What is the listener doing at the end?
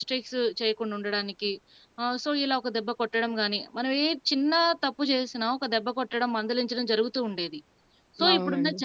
listening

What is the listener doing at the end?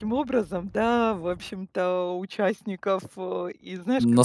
taking over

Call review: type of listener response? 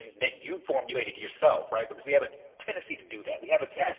listening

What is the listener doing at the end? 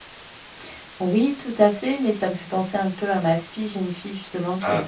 listening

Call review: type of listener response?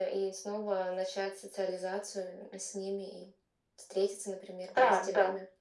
taking over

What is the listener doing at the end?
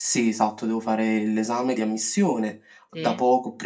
listening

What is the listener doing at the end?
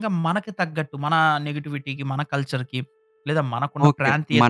taking over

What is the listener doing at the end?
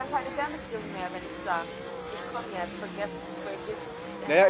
taking over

